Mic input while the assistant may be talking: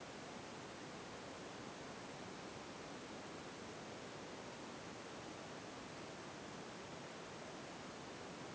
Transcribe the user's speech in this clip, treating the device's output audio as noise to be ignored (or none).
none